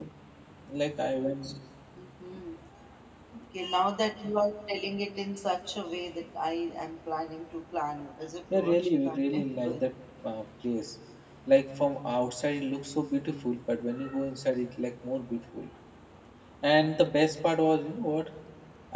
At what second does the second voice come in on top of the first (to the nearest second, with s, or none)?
9 s